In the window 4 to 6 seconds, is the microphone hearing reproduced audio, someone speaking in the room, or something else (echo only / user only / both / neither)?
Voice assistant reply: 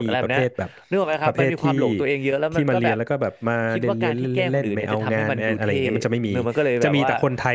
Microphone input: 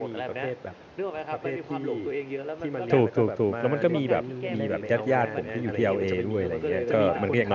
both